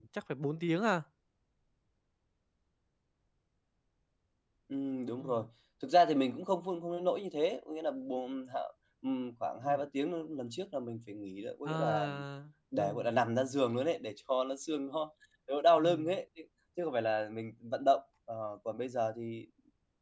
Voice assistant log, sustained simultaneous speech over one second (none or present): none